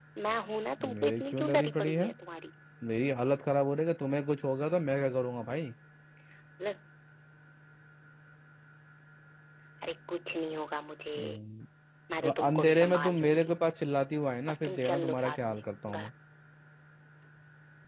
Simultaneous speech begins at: 0.8 s

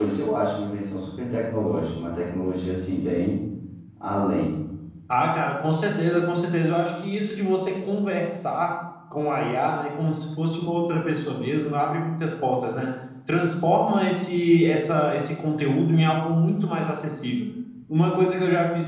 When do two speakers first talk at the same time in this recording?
none

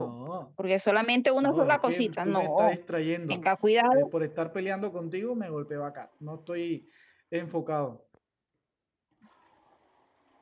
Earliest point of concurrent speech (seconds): 1.4 s

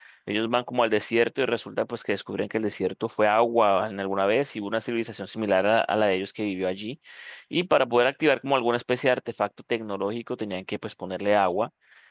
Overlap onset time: none

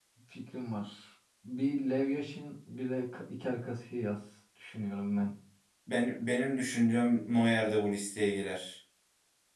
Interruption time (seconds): none

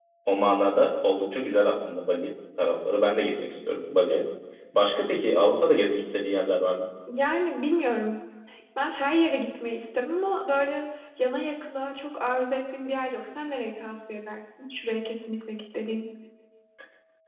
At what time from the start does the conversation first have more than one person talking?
none

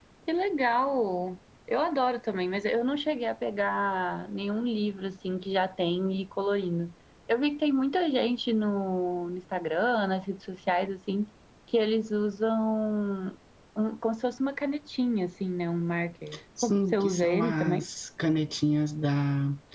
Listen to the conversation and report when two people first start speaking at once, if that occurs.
16.6 s

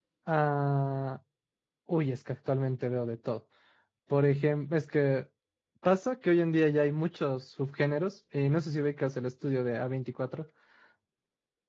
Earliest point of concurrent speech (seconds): none

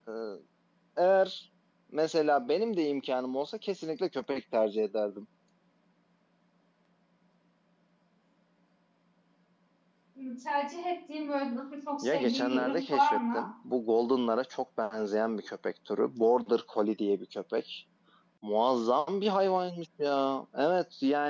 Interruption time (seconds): 12.0 s

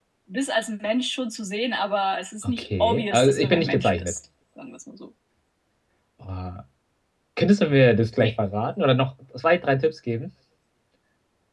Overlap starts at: 2.4 s

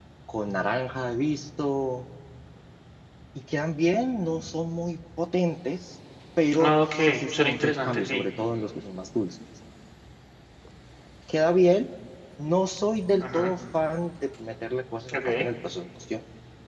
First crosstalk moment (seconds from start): 6.6 s

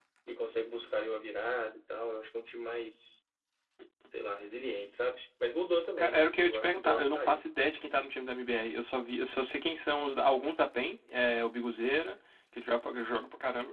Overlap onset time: 6.0 s

